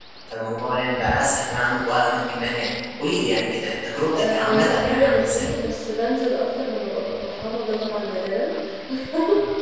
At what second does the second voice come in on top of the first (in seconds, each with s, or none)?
4.1 s